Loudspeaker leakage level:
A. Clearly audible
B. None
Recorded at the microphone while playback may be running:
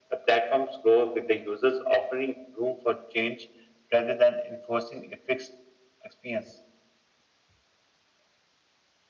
A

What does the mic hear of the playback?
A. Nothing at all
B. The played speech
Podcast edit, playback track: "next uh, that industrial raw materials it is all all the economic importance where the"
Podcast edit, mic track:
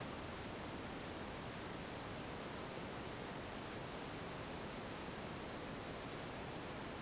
A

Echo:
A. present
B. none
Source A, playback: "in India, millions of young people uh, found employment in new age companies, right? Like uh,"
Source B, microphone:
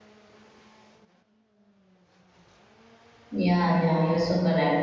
B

